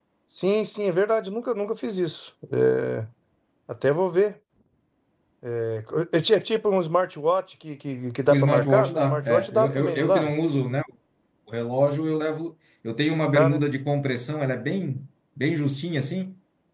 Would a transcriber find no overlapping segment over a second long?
No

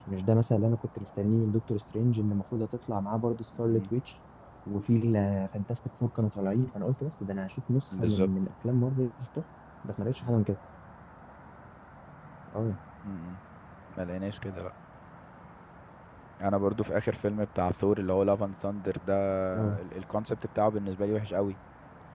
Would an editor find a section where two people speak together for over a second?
No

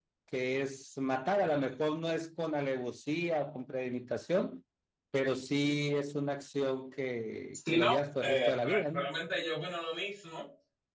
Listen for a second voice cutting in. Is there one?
Yes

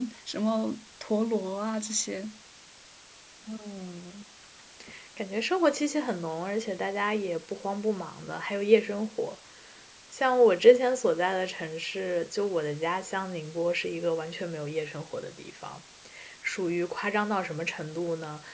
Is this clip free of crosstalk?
Yes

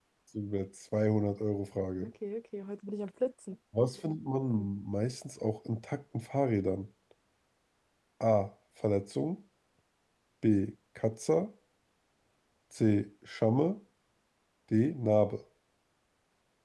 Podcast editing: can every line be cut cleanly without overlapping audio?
Yes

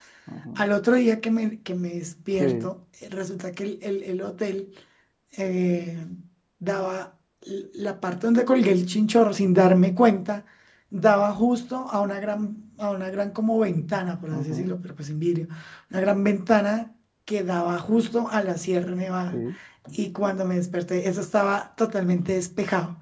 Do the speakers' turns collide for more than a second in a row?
No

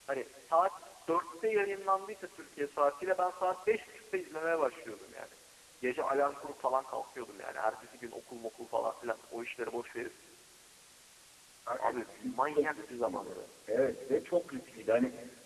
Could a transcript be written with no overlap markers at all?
No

